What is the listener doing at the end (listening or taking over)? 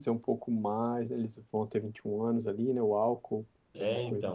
taking over